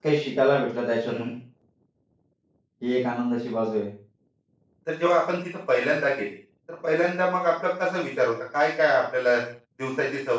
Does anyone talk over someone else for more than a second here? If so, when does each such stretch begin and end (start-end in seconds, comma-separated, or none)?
none